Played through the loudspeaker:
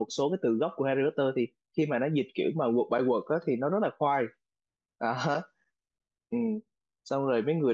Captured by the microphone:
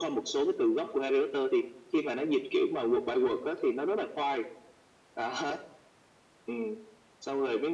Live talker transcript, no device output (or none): none